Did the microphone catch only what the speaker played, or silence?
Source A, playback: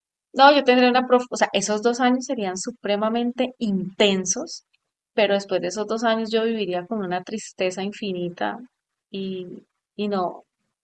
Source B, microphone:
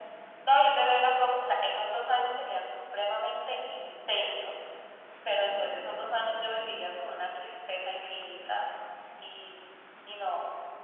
Yes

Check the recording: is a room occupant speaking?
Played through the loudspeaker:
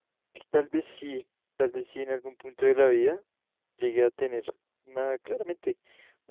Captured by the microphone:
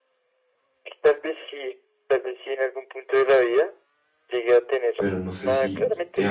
Yes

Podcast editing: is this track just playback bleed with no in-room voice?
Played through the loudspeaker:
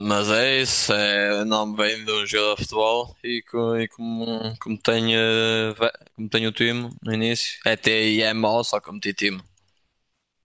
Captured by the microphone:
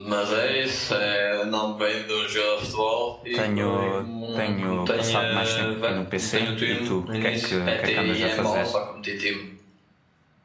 No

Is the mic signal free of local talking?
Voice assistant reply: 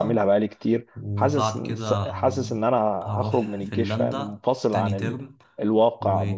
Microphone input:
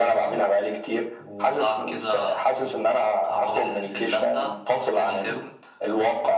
Yes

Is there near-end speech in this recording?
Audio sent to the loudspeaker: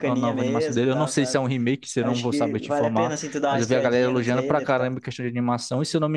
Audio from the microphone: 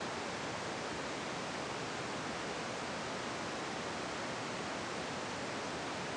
No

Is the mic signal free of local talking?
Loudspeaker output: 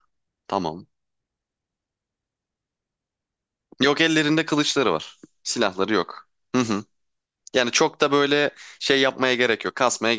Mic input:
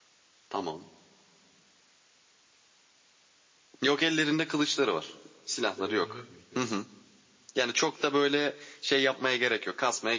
No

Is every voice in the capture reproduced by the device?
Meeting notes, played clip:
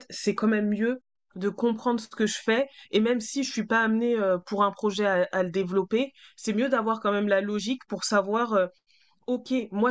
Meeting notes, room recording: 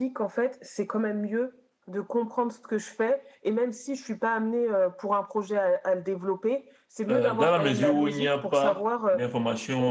No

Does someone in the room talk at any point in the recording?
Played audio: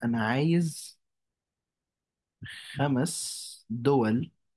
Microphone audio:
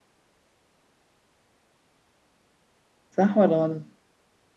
Yes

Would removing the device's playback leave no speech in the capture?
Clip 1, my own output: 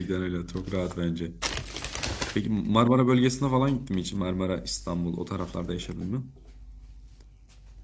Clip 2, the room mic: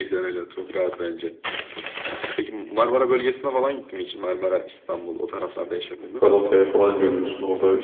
No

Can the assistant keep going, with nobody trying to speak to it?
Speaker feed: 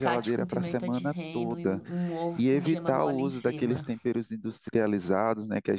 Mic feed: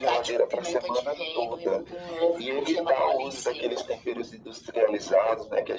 Yes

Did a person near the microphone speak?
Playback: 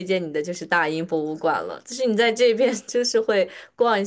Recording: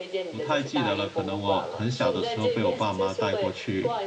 Yes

